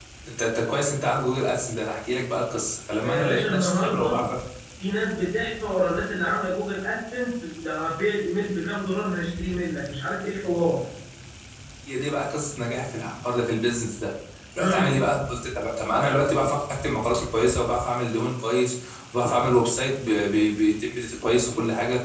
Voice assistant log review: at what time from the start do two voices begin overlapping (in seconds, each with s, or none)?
3.0 s